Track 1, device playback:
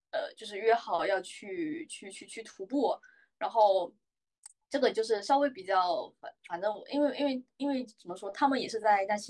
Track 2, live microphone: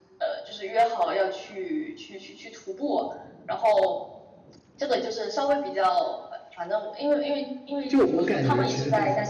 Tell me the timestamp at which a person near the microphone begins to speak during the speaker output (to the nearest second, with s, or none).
8 s